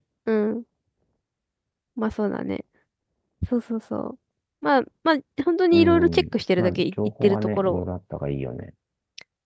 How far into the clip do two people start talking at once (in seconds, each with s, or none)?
5.7 s